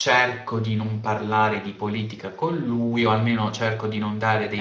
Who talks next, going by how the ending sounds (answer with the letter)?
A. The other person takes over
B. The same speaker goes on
B